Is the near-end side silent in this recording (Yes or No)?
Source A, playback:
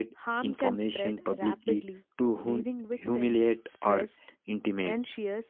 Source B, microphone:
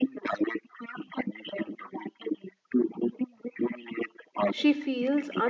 No